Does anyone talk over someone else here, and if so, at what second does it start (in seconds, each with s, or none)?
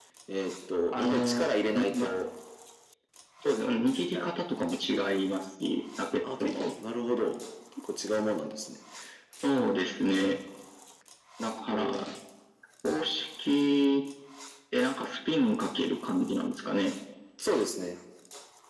0.9 s